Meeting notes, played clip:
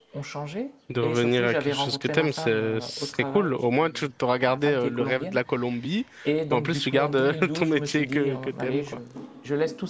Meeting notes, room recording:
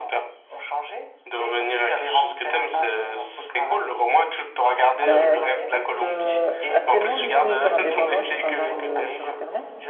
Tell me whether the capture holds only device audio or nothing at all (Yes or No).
No